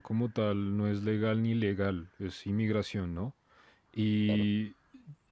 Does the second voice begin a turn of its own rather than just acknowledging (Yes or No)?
No